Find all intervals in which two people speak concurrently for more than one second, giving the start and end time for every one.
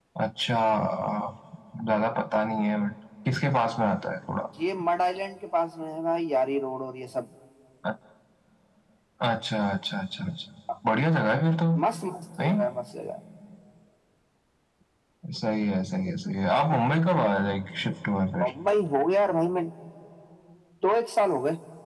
none

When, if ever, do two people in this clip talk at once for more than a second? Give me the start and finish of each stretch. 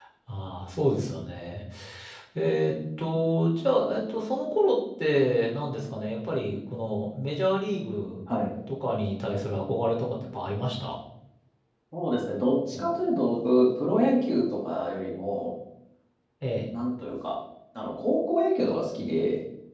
none

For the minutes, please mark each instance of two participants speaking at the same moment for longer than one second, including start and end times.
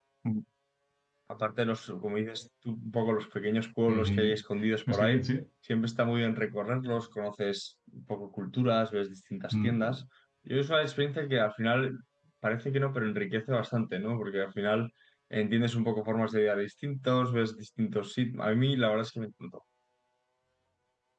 none

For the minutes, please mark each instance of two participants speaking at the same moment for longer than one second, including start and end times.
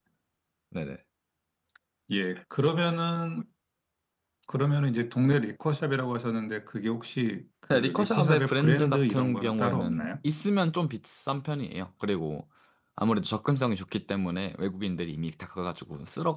7.7-10.1

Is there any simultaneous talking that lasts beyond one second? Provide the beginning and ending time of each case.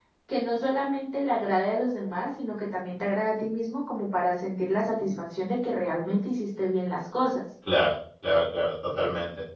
none

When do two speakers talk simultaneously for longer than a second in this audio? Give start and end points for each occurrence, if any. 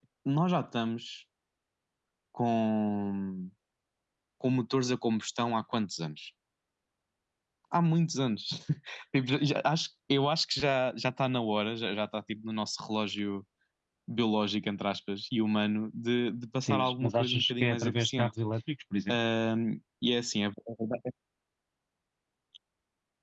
16.6-18.3

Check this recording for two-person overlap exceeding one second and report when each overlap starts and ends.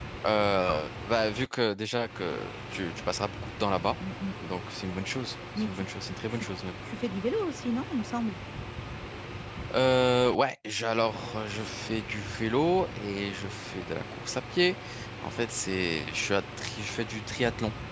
none

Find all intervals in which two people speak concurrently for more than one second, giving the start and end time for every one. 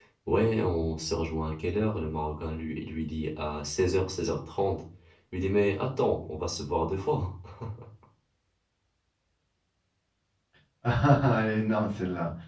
none

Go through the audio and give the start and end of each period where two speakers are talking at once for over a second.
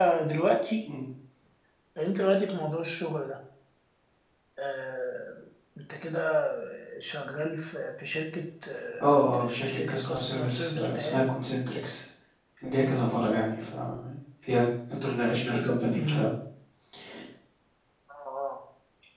9.0-11.2

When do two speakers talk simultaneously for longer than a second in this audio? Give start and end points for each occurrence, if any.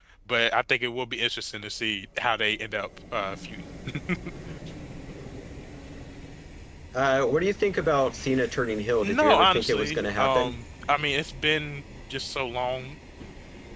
9.0-10.5

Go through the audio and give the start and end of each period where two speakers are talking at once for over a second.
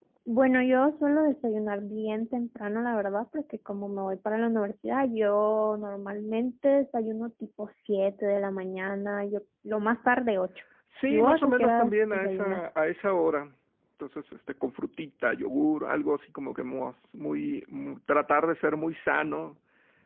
11.1-12.6

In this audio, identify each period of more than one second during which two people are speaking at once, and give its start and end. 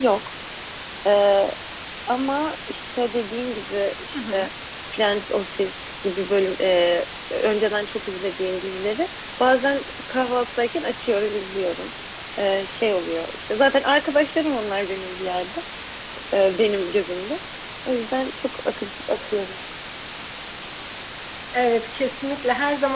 none

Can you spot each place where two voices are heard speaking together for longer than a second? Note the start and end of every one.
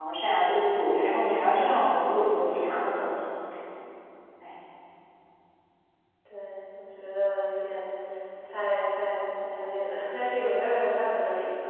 none

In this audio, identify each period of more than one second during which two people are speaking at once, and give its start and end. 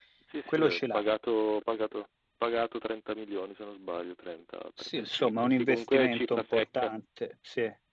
4.8-6.9

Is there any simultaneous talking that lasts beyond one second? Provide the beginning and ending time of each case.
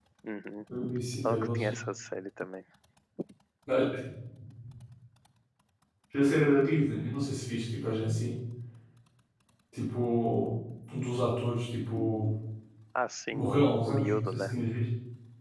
13.3-14.5

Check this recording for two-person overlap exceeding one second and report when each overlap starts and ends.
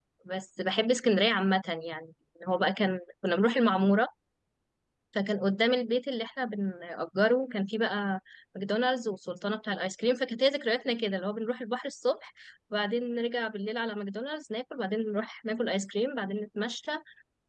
none

